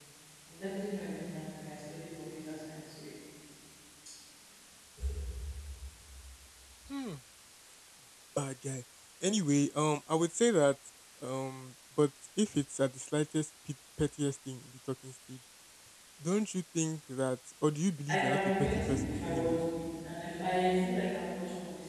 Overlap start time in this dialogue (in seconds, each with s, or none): 18.1 s